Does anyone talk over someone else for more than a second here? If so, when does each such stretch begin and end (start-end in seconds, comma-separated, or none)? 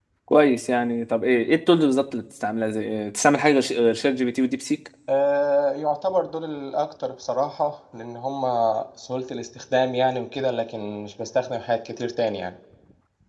none